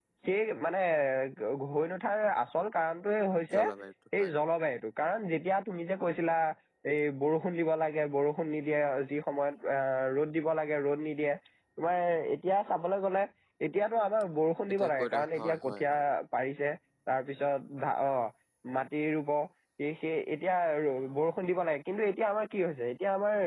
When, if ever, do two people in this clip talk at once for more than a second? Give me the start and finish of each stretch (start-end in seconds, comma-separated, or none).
14.7-15.9